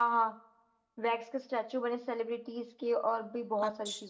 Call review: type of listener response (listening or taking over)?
taking over